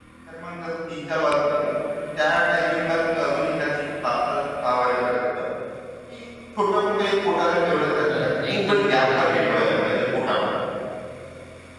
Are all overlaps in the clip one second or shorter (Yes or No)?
No